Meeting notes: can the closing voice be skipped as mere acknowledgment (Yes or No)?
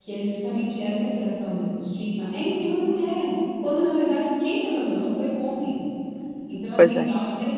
Yes